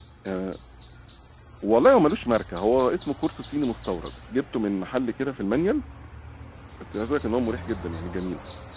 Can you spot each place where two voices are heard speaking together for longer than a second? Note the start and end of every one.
none

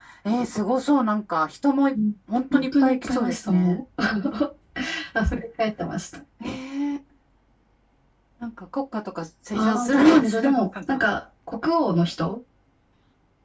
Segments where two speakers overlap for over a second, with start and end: 2.5-3.8, 9.5-11.0

